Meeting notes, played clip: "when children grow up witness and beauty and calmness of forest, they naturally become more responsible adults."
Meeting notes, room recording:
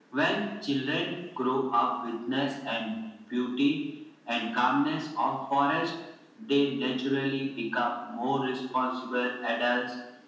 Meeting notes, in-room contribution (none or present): none